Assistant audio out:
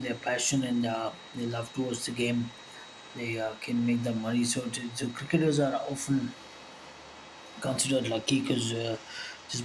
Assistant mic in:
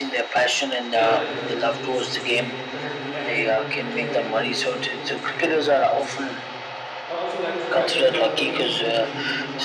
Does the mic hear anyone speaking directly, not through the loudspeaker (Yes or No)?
Yes